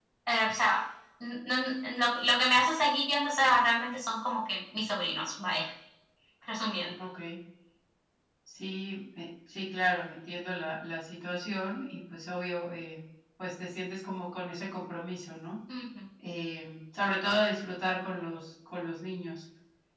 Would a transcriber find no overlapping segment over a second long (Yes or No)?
Yes